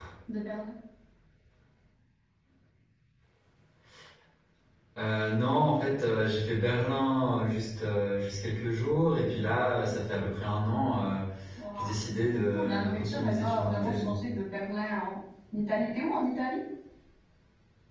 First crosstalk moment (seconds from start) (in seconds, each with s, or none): 11.8 s